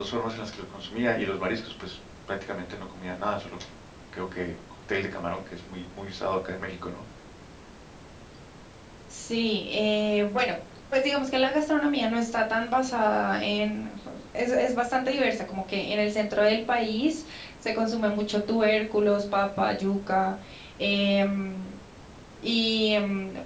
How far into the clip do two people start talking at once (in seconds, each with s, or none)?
none